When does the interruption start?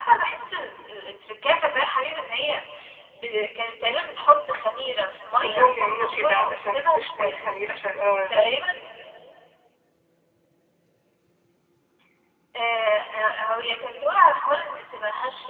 5.4 s

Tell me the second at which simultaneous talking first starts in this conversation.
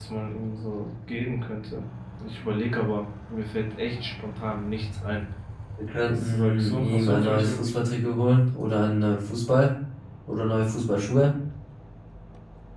6.1 s

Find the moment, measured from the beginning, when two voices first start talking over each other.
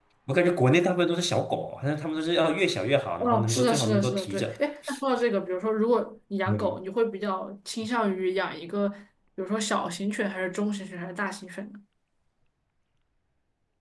3.2 s

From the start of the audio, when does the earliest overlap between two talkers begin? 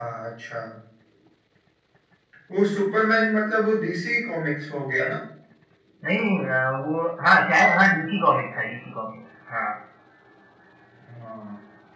none

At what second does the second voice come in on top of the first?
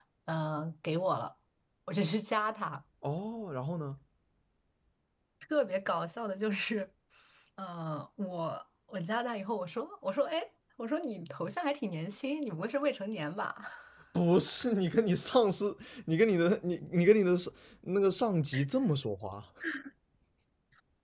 none

